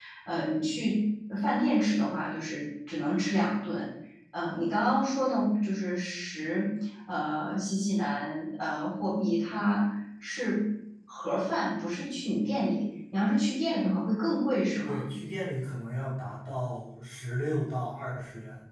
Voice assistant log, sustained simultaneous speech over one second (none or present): none